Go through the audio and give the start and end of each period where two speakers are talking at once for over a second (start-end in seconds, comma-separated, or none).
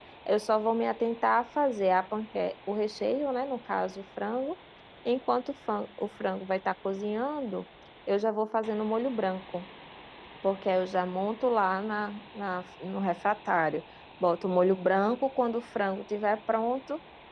none